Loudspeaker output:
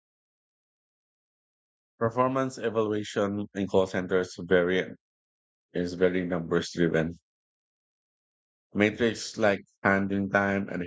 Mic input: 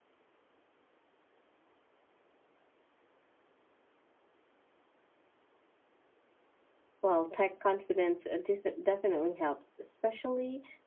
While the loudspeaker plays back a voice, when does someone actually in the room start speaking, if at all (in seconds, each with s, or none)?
7.0 s